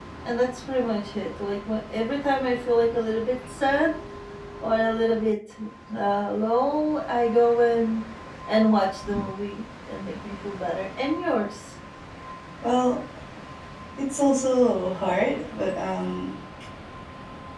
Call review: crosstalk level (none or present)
none